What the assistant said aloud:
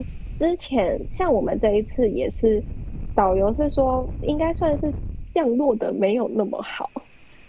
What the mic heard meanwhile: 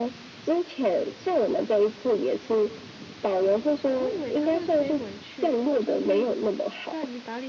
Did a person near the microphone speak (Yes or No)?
Yes